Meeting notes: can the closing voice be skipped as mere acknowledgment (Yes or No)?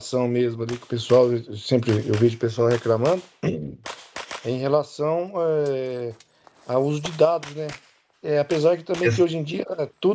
Yes